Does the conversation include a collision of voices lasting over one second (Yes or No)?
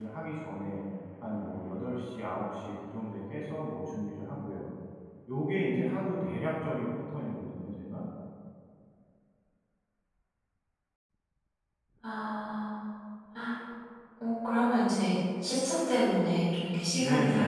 No